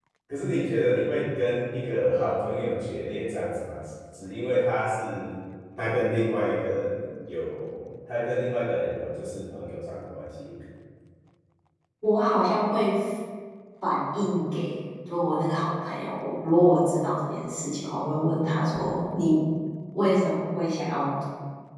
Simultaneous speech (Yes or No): No